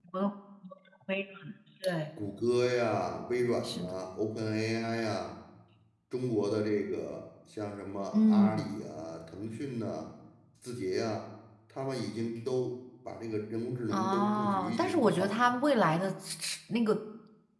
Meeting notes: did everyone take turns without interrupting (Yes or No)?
No